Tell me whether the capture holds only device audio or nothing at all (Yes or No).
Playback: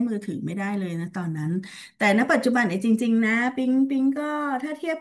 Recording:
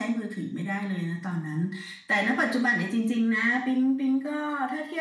Yes